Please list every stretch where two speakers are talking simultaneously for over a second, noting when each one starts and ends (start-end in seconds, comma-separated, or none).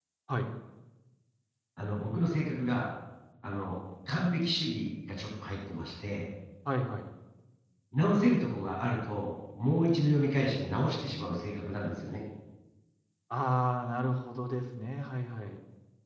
none